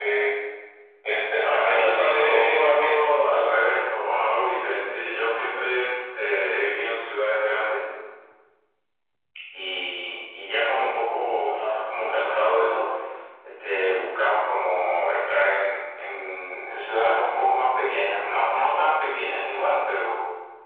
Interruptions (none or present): present